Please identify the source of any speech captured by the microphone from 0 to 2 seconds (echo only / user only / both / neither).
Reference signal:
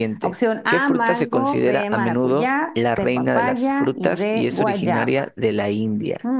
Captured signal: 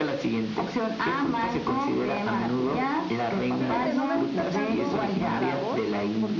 echo only